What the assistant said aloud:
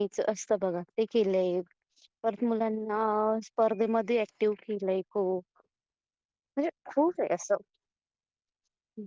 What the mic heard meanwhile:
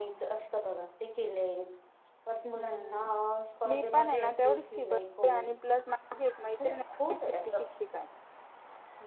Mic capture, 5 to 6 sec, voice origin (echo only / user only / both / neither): both